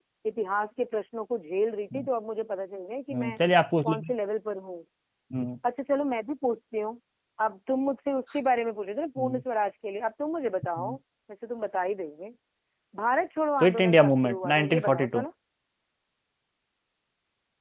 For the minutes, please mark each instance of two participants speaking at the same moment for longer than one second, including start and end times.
13.6-15.2

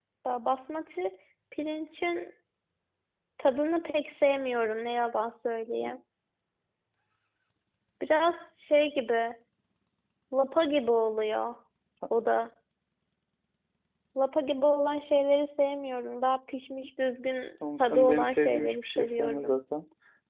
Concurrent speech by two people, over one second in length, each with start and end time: 17.8-19.5

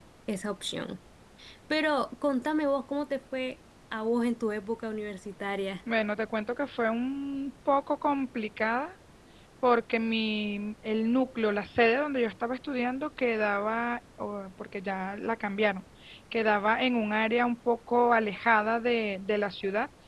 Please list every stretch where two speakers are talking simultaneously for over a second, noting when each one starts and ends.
none

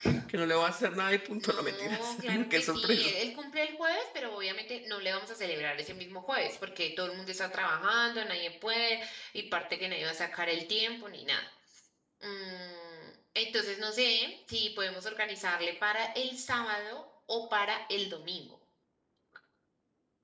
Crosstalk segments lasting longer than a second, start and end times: 1.4-3.1

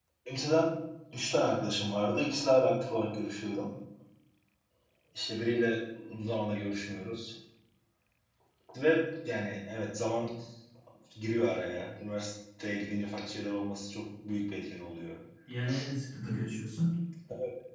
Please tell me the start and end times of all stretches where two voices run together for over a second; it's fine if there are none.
none

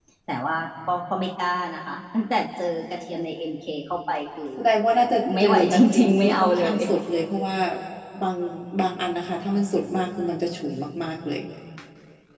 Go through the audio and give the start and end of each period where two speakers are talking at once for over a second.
5.4-6.8

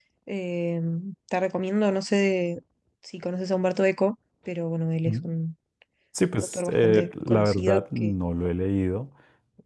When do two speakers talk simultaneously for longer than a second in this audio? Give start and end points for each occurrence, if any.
6.5-8.1

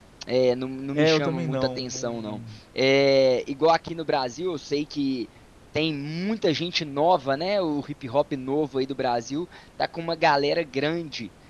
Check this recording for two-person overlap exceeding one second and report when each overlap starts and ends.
0.9-2.4

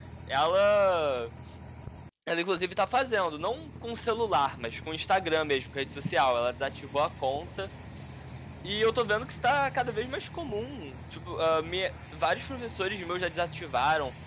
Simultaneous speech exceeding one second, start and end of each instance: none

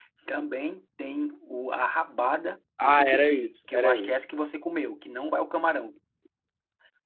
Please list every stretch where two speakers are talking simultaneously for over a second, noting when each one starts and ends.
2.8-4.2

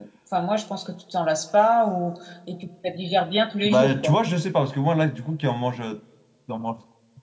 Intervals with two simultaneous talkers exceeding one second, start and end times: none

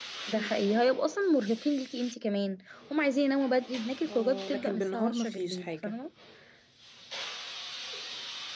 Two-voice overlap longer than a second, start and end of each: 4.1-6.0

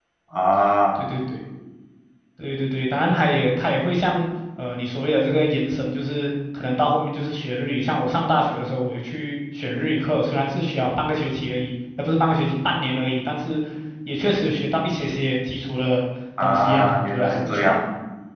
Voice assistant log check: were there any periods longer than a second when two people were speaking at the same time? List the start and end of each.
16.4-17.8

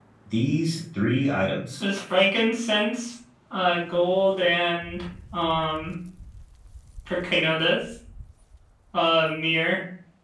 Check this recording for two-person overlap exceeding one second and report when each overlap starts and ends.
none

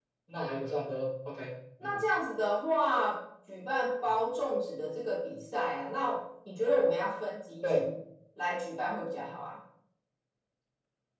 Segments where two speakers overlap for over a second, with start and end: none

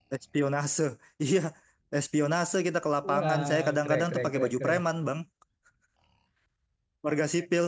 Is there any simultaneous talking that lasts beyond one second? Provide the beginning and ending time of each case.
3.1-4.8

